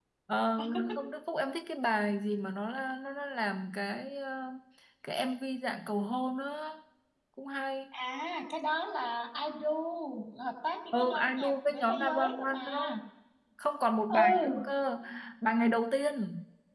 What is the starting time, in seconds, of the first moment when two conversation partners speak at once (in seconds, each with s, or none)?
10.9 s